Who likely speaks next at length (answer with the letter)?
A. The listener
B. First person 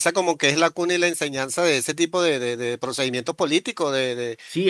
A